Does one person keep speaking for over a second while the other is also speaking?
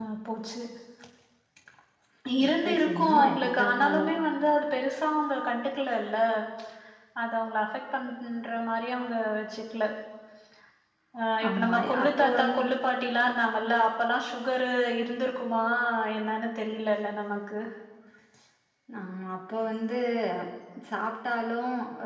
Yes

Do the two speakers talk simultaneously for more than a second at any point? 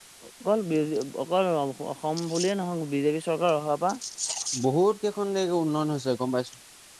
No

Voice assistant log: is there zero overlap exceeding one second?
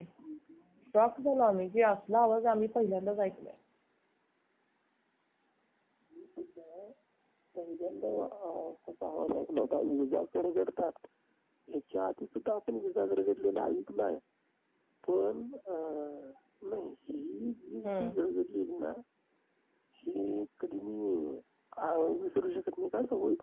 Yes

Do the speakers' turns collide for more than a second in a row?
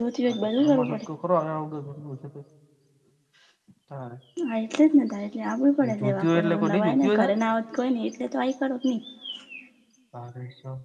Yes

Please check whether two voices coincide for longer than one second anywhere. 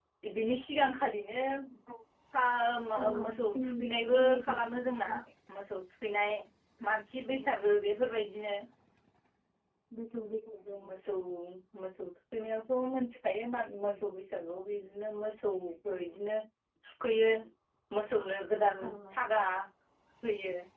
Yes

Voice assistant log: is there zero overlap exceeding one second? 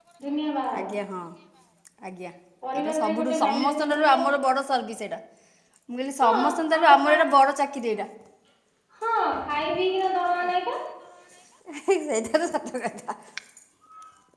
No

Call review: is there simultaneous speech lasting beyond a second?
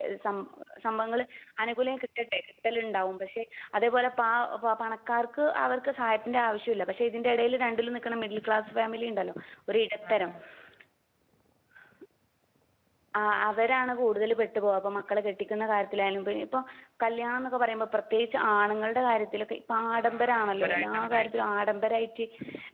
Yes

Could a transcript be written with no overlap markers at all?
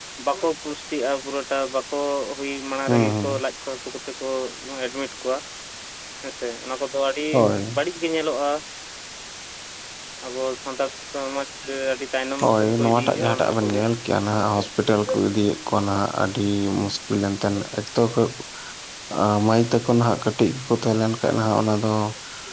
No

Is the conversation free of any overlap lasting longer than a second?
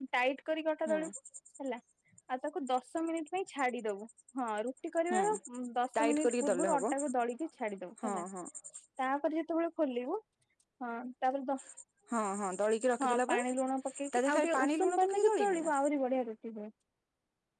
No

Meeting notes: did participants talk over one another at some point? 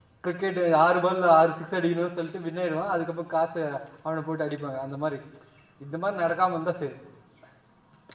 No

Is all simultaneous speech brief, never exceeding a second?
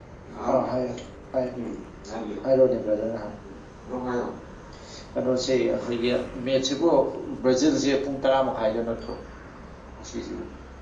Yes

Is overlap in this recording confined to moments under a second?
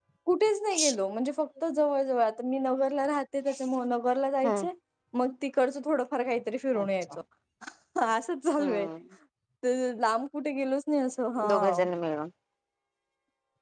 Yes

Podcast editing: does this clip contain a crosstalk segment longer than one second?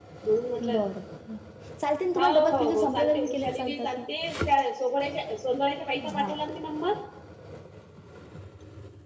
Yes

